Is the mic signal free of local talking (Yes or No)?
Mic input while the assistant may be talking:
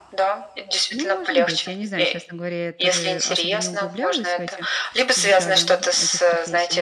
No